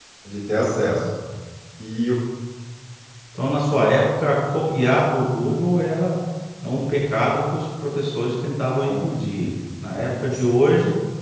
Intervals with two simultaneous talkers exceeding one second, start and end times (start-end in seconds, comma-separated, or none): none